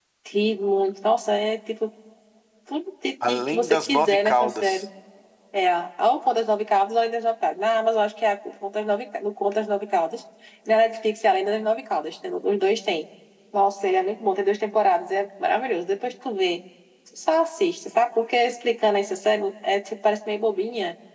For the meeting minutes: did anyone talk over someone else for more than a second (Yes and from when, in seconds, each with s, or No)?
Yes, from 3.3 s